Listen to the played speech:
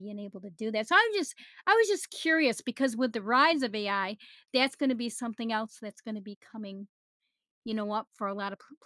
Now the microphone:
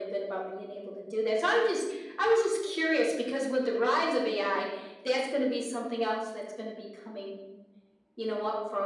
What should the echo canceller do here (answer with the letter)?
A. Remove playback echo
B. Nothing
A